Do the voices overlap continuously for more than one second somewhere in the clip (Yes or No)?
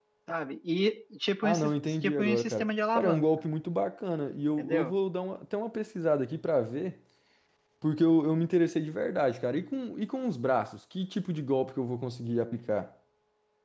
Yes